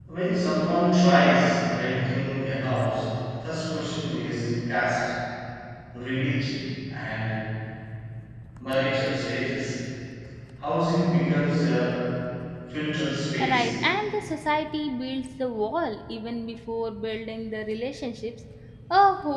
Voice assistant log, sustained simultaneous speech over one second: none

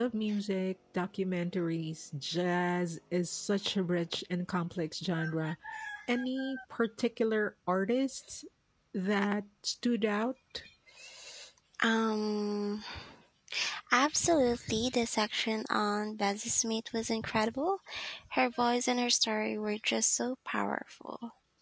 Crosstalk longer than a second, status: none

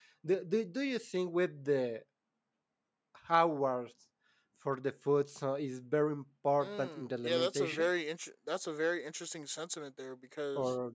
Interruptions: present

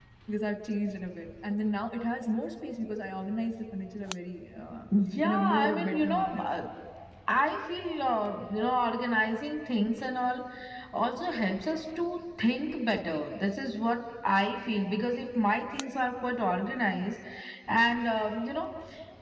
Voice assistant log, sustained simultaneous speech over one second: present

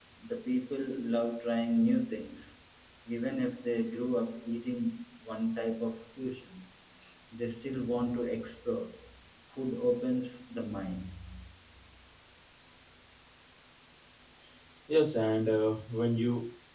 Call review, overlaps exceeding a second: none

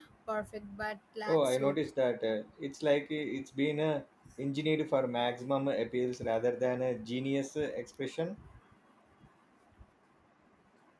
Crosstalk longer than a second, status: none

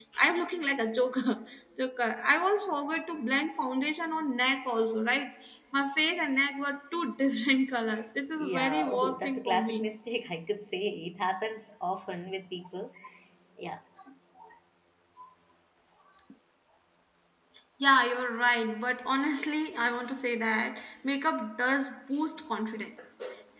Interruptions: present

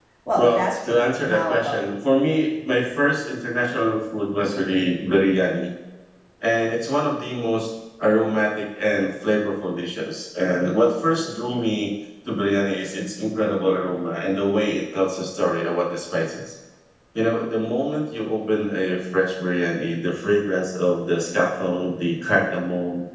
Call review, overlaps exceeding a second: present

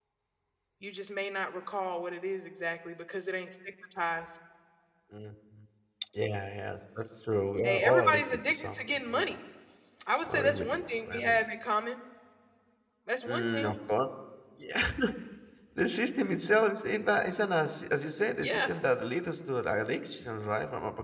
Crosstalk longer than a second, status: present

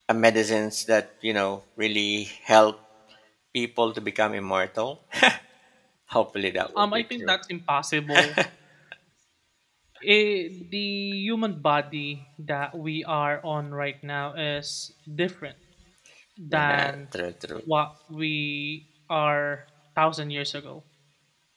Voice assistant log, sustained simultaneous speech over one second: none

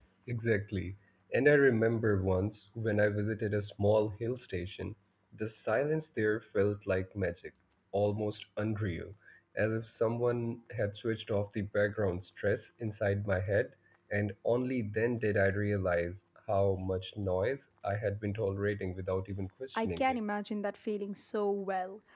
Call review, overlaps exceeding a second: none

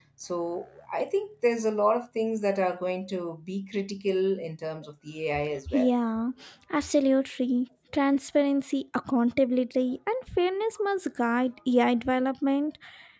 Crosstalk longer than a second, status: none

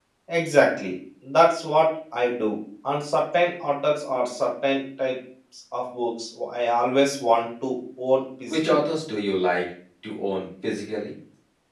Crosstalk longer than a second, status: none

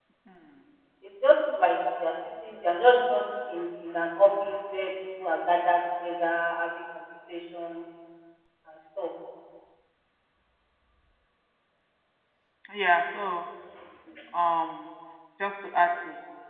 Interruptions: none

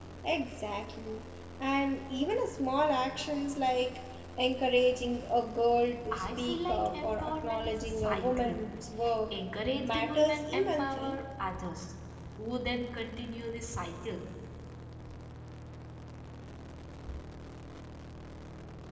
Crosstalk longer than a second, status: present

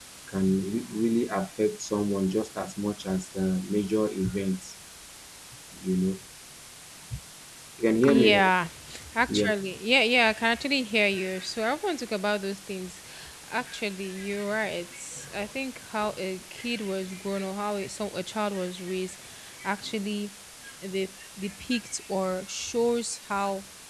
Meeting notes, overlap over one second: none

